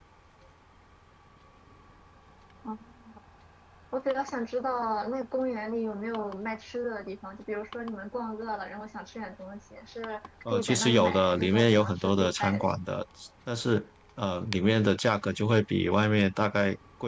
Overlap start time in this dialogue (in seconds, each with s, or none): 10.4 s